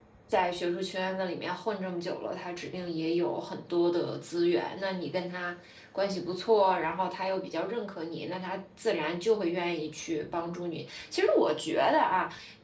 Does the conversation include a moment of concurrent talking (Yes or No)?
No